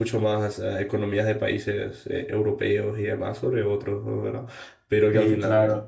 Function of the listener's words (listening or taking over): listening